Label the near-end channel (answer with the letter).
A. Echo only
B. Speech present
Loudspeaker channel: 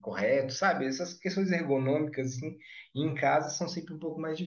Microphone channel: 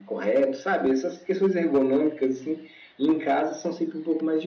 A